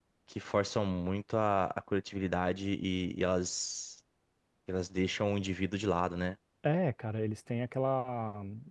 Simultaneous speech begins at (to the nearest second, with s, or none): none